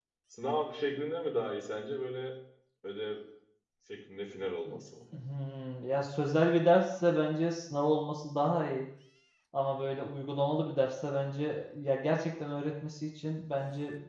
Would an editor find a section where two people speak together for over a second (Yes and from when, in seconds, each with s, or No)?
No